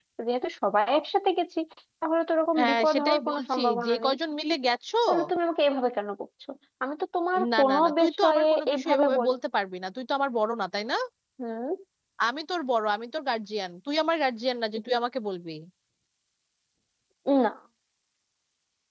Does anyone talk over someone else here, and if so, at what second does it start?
2.6 s

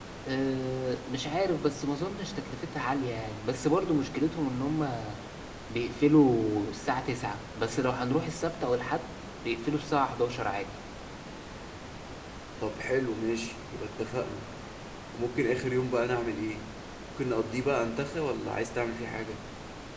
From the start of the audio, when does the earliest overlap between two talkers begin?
none

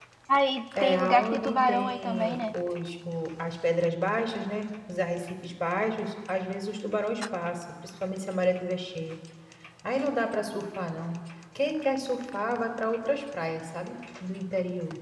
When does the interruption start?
0.8 s

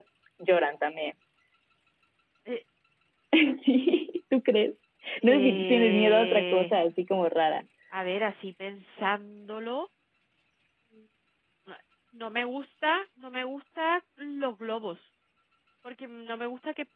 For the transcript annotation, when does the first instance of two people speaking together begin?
5.2 s

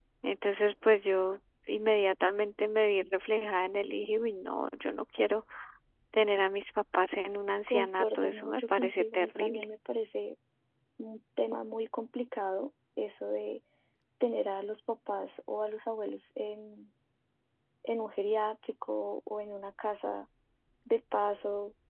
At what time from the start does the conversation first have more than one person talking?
7.7 s

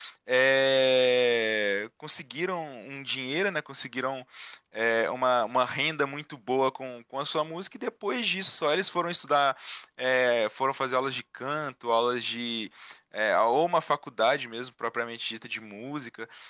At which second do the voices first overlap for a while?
none

